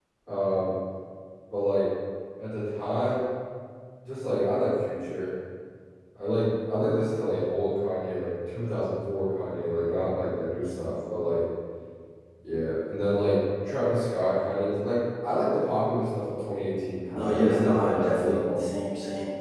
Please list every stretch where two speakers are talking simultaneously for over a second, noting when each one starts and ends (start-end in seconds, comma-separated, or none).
17.1-18.5